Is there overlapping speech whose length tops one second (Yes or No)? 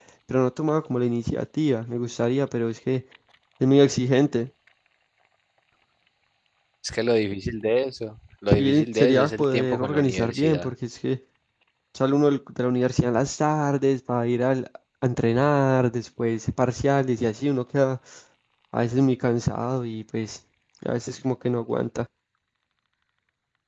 Yes